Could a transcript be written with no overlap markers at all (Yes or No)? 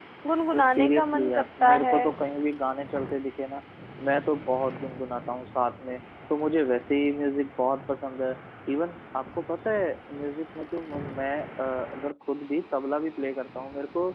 No